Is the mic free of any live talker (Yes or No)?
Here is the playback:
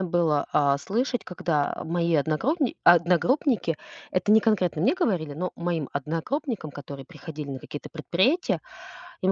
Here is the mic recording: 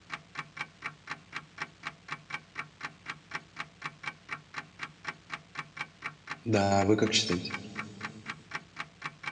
No